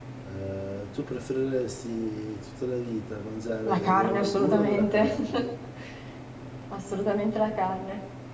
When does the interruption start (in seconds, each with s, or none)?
3.6 s